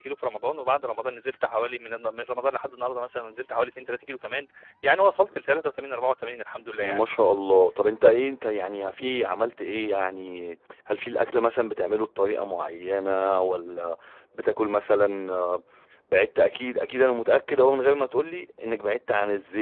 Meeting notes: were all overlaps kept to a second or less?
Yes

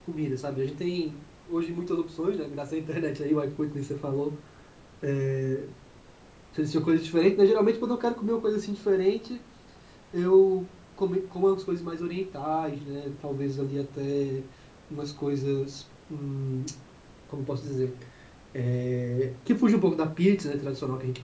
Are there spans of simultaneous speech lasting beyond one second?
No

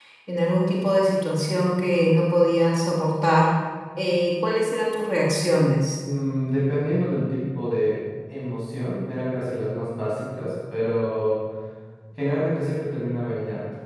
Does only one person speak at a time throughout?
Yes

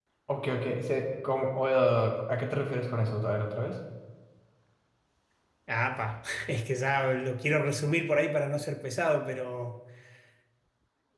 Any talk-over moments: No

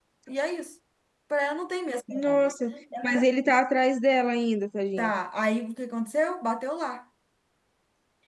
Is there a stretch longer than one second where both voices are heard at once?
No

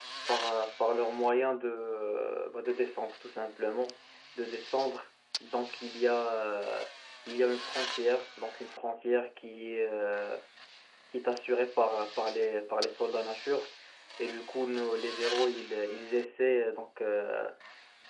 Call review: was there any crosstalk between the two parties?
No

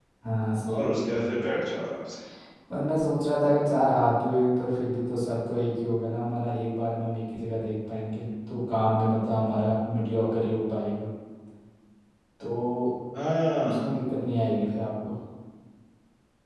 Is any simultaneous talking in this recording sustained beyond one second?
No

